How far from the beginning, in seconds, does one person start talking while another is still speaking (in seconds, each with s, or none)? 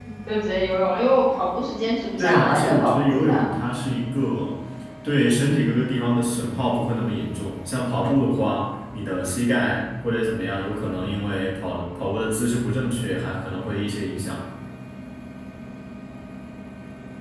2.2 s